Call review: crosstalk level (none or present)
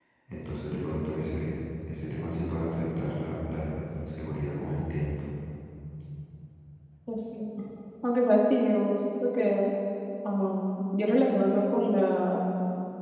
none